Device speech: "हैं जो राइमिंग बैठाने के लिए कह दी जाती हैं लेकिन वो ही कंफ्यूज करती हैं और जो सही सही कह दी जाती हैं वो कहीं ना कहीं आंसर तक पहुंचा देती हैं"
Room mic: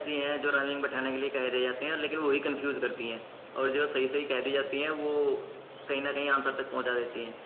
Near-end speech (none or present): none